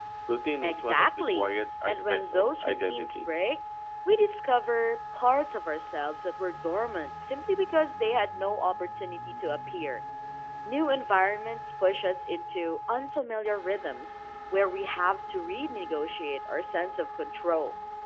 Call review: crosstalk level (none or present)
present